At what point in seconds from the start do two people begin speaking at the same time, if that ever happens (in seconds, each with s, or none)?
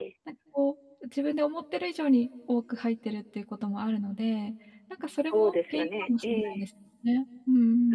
5.3 s